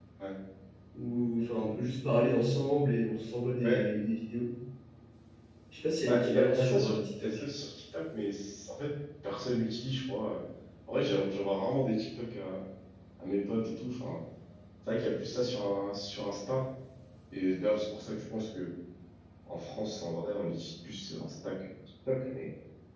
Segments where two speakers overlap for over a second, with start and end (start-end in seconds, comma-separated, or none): 6.1-7.3